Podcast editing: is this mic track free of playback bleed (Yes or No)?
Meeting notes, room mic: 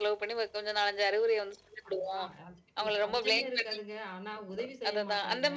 No